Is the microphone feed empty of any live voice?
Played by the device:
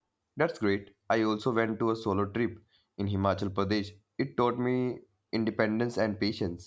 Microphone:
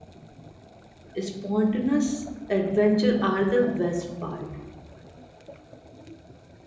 No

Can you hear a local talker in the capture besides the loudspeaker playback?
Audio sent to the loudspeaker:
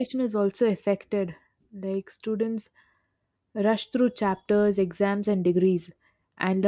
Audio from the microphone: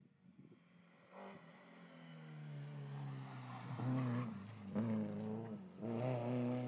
No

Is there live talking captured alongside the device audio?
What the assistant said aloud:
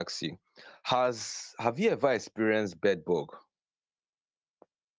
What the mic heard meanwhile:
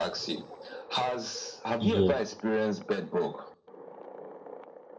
Yes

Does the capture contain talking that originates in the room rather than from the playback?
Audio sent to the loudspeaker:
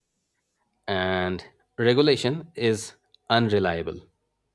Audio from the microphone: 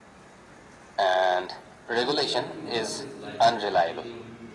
Yes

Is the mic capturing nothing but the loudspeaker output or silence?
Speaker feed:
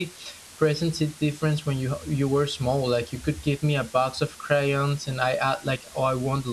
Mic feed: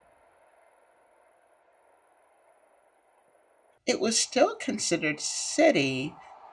No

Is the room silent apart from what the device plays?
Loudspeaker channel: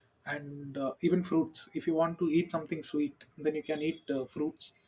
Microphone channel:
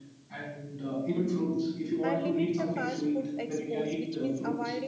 No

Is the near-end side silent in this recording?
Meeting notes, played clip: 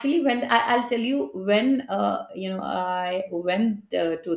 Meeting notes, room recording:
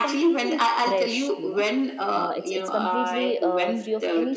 No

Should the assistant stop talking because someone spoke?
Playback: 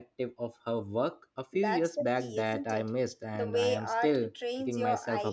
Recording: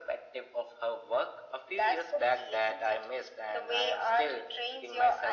No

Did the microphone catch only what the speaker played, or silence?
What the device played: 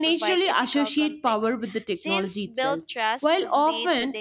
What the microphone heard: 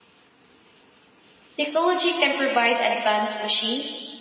No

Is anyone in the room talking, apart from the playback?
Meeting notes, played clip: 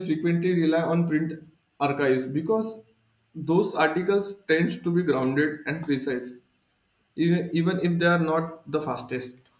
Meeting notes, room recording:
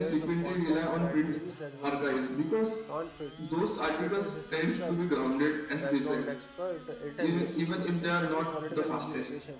Yes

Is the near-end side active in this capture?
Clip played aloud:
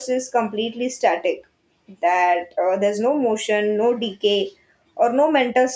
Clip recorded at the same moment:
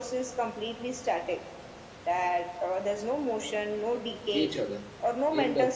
Yes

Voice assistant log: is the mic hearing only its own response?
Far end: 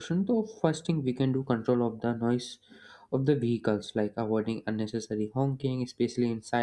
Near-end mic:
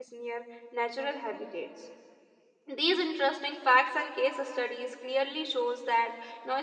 No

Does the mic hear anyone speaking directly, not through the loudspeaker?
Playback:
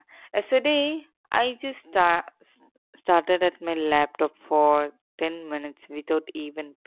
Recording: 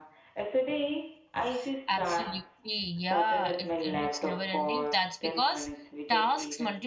Yes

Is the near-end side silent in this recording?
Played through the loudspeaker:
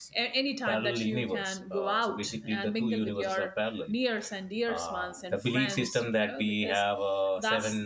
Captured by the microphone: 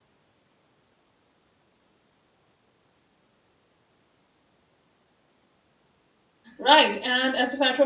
No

